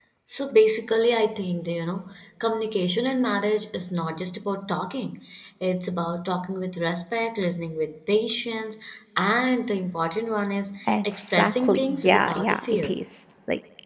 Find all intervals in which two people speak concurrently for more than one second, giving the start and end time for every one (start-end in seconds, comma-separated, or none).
10.9-13.0